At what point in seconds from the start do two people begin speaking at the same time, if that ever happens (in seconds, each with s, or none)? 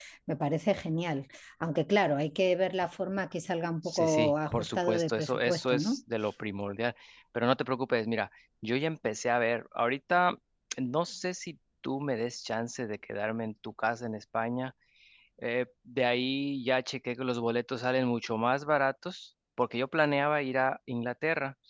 3.8 s